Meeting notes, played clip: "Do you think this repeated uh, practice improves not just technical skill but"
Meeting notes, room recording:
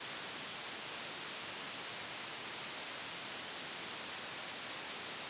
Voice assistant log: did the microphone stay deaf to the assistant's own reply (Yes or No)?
Yes